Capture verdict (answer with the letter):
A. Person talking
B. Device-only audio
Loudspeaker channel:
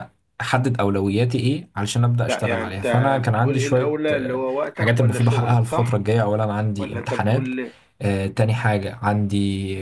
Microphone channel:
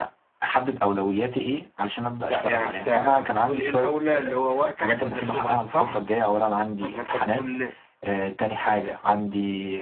B